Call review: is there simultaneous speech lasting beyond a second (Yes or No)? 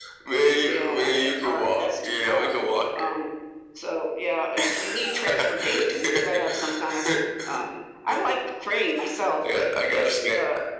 Yes